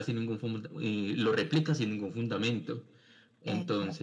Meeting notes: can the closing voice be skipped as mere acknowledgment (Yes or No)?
Yes